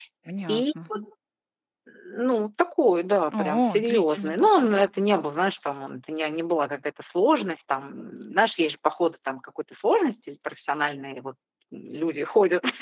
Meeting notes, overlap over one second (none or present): present